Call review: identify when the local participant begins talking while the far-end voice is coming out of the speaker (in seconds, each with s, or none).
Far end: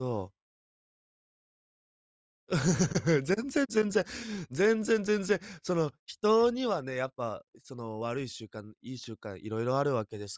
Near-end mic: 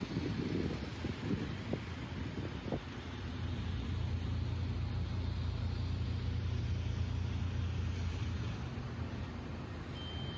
none